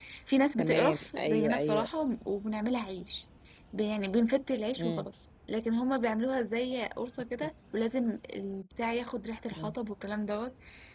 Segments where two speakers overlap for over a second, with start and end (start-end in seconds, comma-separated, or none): 0.6-1.9